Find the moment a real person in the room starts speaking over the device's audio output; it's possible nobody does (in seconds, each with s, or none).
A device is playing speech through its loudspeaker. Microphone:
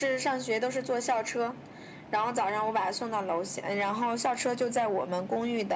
none